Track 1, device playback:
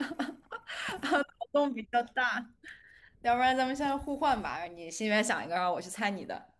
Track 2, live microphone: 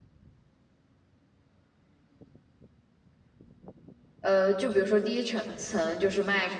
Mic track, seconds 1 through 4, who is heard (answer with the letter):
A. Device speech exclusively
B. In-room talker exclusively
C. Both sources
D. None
D